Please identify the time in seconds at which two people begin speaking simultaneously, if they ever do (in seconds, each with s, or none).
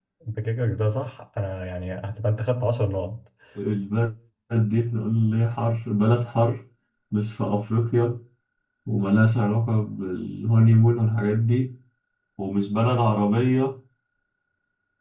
none